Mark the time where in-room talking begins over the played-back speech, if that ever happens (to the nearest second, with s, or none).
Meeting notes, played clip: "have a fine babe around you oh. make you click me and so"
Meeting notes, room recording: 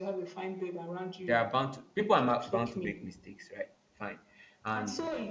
1 s